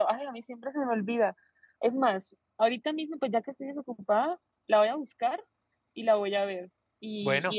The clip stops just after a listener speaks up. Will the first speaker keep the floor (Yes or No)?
Yes